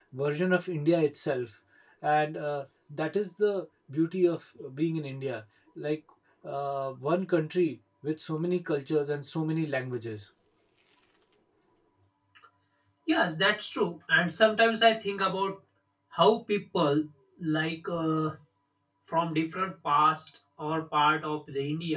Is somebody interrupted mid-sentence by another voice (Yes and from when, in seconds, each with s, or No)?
No